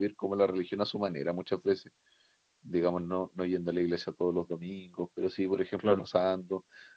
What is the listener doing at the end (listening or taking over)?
listening